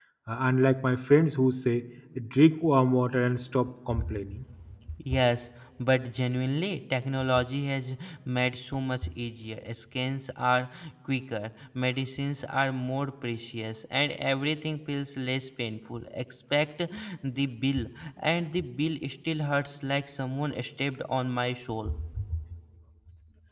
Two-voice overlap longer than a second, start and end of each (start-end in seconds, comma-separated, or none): none